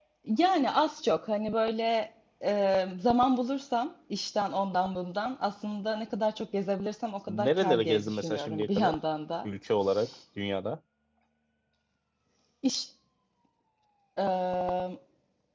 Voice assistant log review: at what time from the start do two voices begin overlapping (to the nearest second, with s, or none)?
7 s